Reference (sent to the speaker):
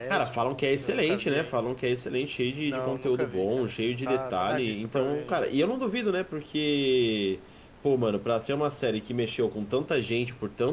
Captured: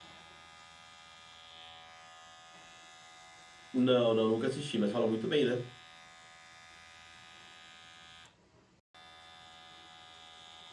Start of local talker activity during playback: 3.7 s

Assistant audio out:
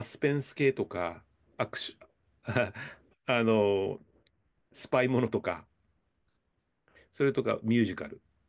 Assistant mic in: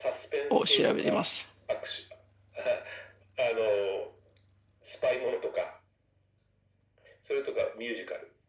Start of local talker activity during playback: 0.5 s

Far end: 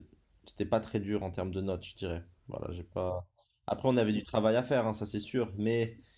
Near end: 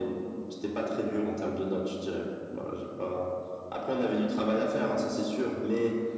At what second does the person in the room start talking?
none

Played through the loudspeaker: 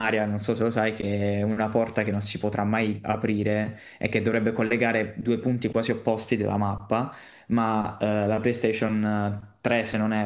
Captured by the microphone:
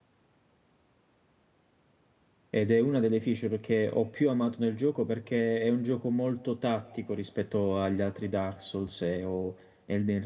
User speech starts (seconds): 2.5 s

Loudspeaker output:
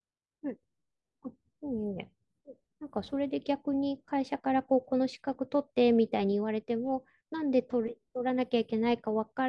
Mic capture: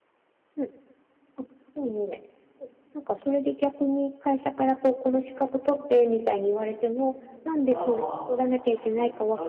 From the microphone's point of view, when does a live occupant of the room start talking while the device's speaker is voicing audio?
7.7 s

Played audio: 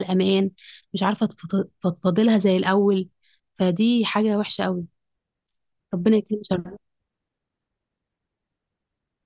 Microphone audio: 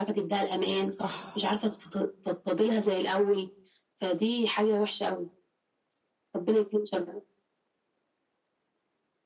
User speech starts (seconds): 0.9 s

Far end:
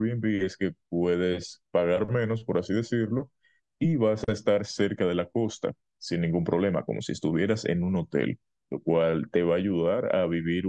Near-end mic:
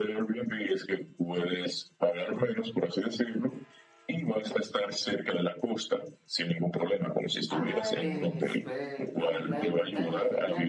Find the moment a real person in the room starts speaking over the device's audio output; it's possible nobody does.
7.5 s

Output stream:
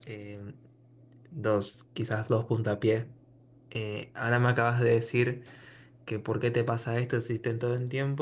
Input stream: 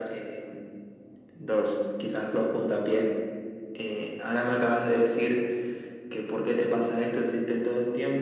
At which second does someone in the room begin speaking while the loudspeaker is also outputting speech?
none

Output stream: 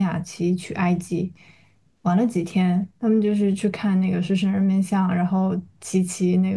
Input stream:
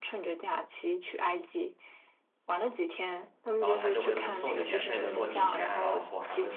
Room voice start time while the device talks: 3.6 s

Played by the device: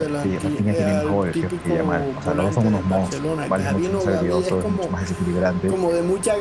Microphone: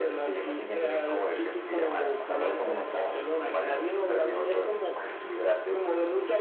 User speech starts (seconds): none

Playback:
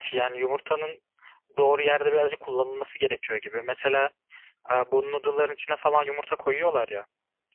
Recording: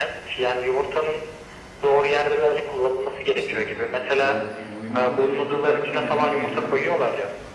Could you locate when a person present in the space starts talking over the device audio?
3.3 s

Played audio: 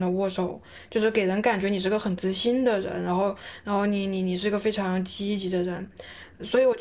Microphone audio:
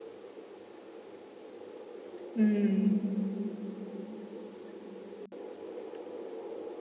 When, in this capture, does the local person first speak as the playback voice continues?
2.4 s

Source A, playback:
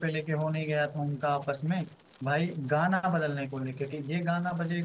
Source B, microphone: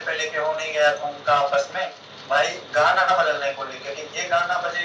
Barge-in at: none

